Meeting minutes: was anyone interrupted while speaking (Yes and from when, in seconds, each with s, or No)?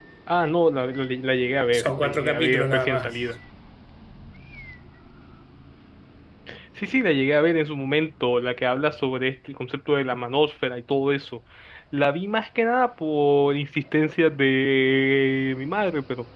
Yes, from 1.7 s